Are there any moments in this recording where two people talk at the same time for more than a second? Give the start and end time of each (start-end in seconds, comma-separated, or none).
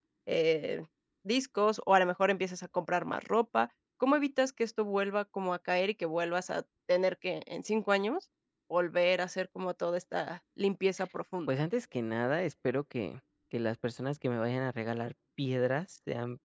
none